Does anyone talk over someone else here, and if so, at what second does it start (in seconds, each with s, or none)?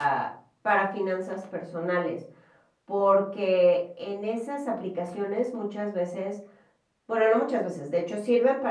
none